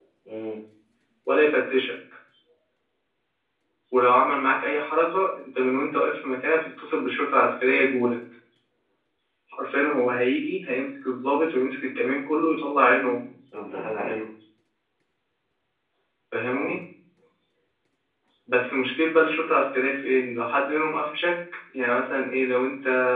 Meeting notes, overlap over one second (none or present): none